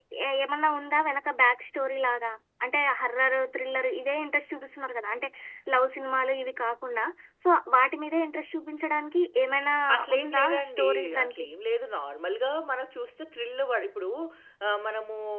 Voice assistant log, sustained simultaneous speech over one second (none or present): present